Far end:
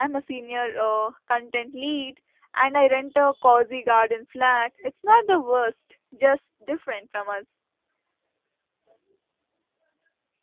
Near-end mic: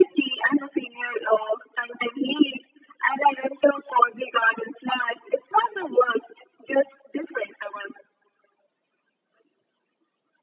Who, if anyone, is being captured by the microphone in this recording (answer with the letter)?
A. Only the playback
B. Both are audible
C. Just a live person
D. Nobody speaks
A